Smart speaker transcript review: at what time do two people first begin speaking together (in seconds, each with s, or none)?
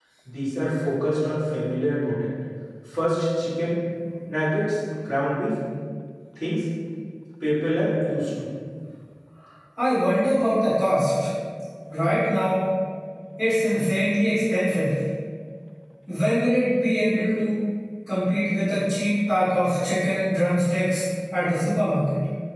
none